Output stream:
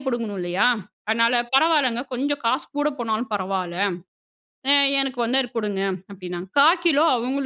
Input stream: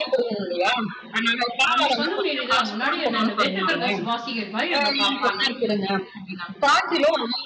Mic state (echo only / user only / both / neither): both